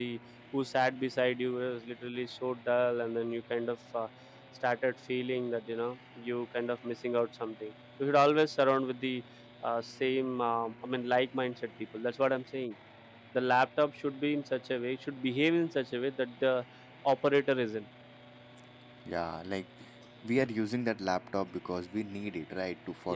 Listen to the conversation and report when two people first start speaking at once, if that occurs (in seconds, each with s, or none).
none